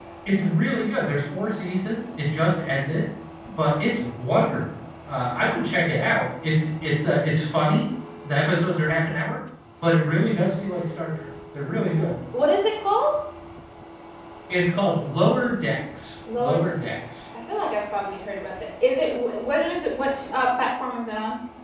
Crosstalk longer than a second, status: none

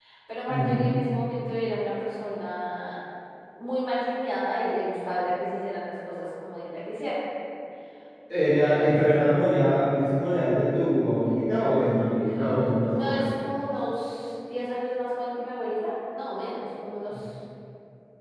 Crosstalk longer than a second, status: none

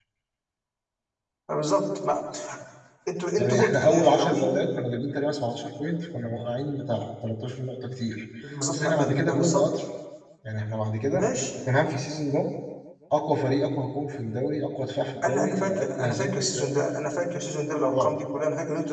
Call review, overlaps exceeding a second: present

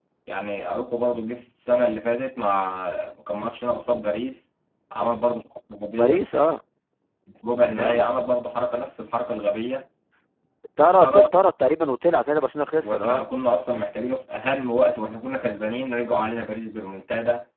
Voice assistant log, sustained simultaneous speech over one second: none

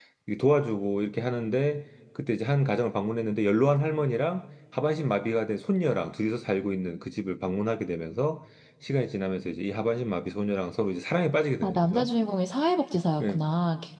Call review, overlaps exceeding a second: none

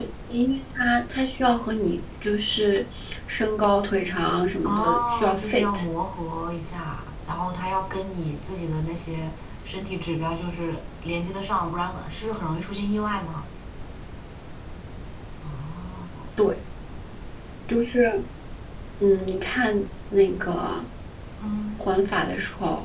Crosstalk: present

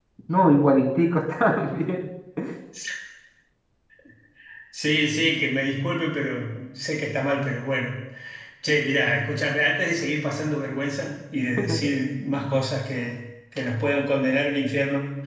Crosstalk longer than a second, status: none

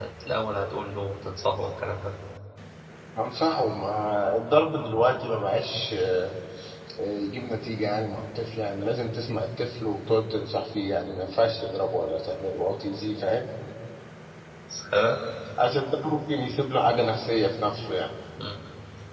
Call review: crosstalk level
none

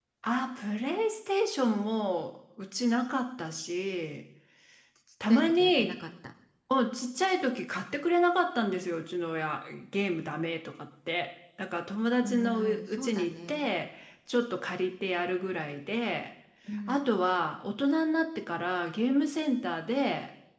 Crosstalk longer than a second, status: present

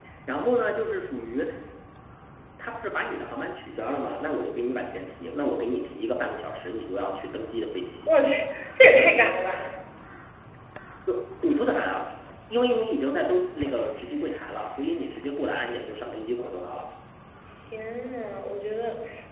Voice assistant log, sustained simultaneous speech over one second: none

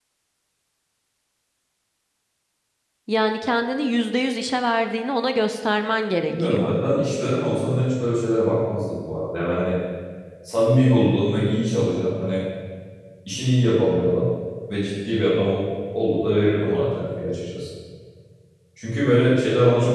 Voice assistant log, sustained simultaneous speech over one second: none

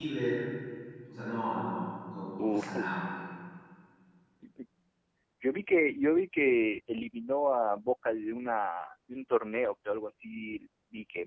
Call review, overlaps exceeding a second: none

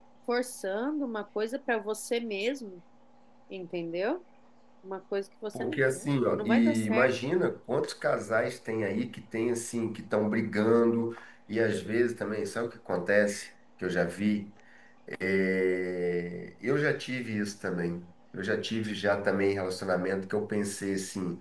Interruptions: present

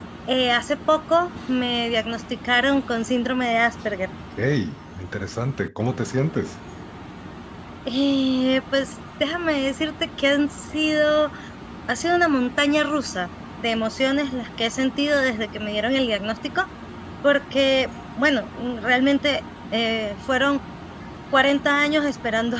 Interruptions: none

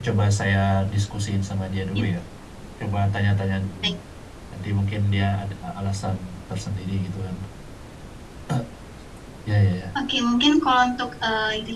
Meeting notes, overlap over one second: none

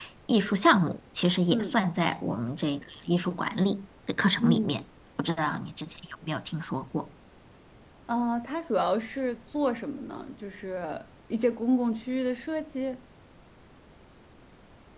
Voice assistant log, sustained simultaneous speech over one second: none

